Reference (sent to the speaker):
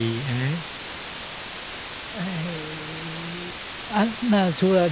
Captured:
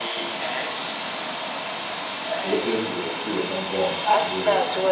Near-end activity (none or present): present